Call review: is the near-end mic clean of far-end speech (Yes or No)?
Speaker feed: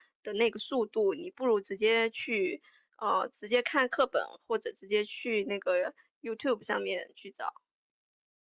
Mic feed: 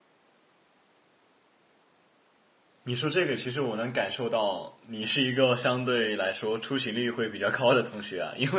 Yes